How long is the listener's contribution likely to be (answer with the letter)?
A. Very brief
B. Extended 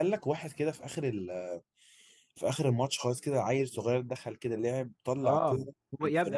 B